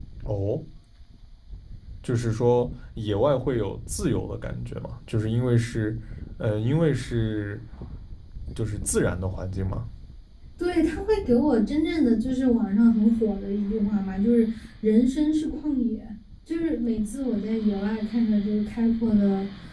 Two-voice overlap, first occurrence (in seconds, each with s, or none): none